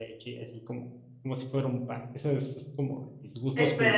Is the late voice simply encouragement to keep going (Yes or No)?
No